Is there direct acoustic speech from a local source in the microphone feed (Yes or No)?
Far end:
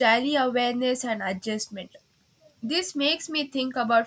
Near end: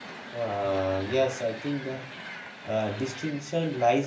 Yes